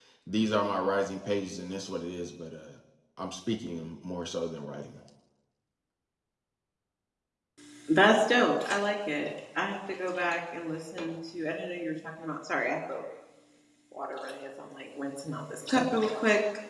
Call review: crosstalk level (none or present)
none